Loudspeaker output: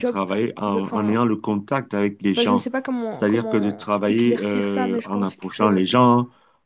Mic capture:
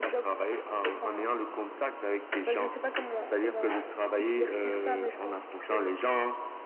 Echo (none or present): present